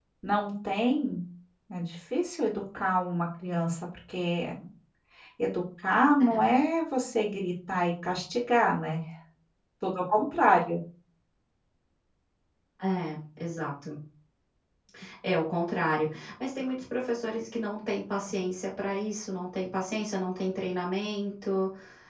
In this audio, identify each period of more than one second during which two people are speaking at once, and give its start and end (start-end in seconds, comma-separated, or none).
none